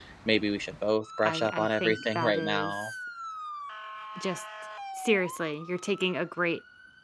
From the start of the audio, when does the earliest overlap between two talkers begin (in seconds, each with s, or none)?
1.2 s